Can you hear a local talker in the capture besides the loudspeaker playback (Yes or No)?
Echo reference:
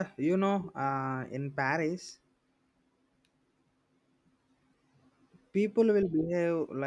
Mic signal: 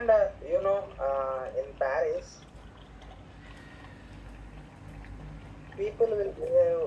No